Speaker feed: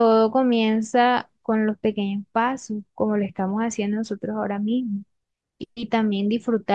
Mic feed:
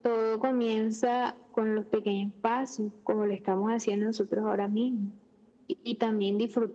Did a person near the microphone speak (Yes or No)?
No